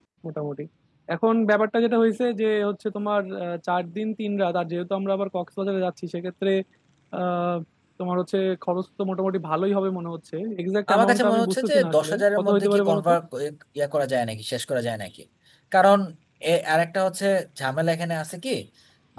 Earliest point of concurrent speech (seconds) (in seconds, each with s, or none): 10.9 s